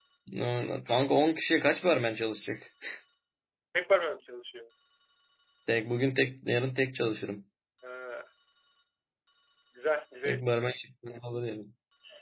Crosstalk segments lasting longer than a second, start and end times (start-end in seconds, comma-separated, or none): none